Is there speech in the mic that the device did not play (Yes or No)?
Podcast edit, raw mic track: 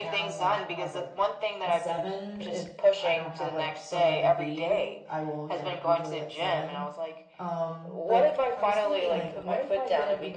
Yes